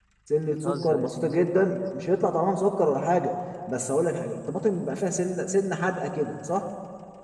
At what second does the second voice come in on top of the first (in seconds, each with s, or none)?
0.5 s